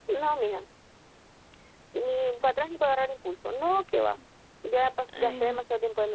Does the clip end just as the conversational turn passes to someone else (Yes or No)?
No